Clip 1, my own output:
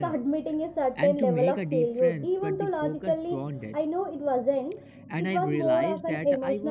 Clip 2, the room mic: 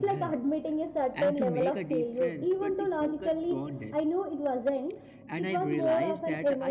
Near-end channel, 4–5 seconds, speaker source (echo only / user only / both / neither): echo only